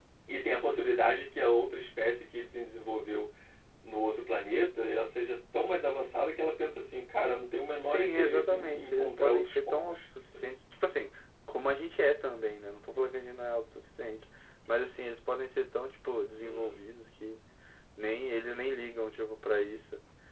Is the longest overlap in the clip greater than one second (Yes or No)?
Yes